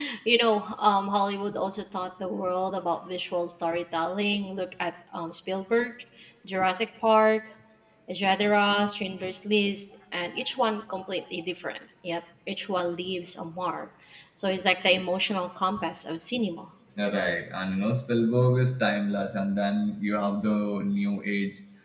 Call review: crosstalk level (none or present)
none